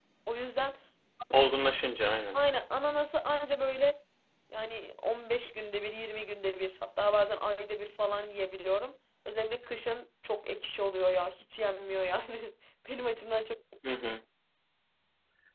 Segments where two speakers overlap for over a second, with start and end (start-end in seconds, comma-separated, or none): none